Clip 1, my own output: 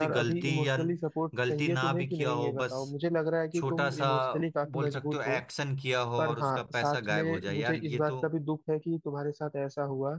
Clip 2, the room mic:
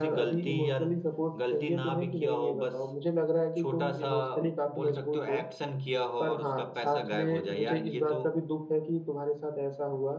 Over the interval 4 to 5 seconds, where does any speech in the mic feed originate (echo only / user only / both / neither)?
echo only